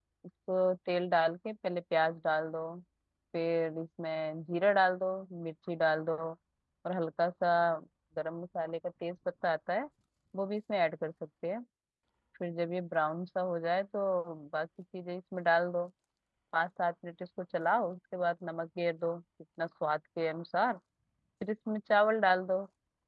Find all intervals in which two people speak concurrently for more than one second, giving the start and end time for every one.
none

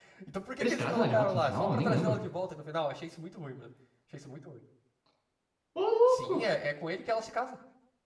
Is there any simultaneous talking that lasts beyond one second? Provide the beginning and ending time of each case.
0.6-2.2

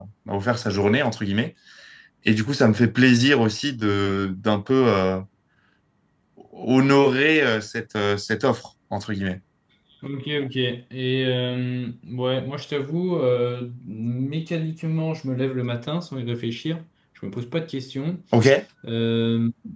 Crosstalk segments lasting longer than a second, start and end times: none

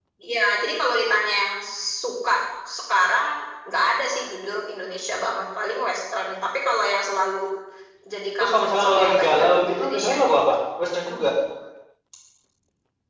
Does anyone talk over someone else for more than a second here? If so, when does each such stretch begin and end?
8.4-10.4

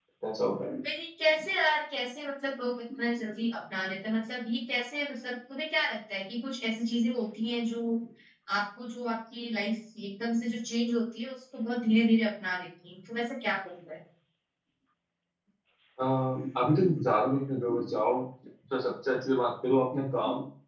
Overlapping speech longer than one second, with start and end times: none

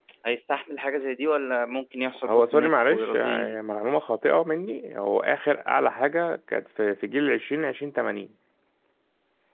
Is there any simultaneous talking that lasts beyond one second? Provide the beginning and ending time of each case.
2.3-3.6

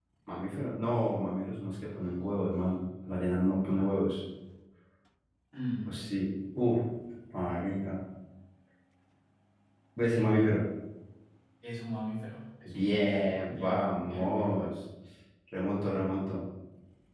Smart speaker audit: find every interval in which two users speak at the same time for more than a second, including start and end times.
12.7-14.7

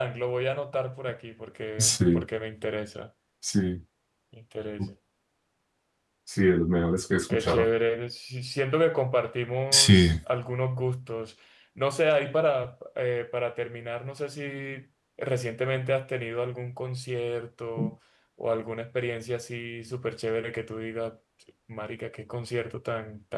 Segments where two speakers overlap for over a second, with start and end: none

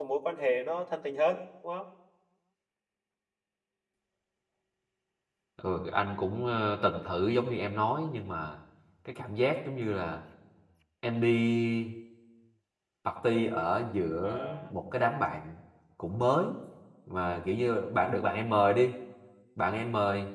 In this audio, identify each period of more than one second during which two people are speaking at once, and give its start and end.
none

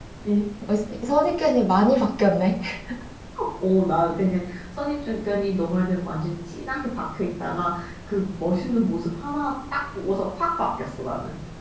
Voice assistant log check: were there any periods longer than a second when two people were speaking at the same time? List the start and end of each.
none

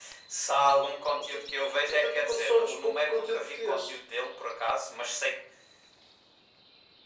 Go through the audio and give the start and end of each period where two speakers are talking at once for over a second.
1.9-3.8

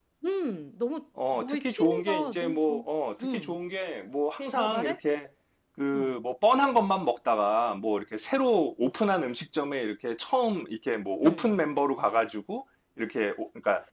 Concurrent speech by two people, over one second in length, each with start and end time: 1.3-2.8

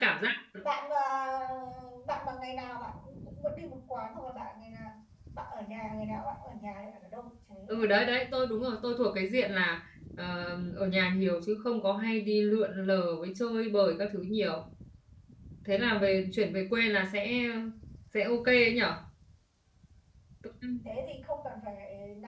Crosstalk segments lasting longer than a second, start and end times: none

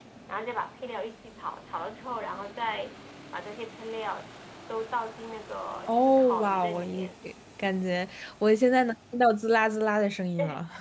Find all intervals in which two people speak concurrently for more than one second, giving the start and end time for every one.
5.9-7.1

